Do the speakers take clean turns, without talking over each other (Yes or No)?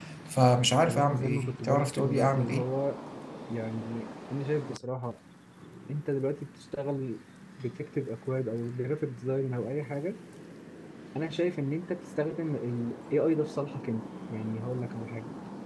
No